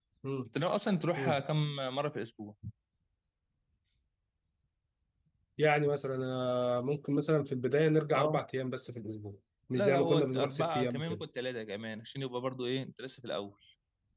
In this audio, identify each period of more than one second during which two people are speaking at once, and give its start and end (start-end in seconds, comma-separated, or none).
9.7-11.2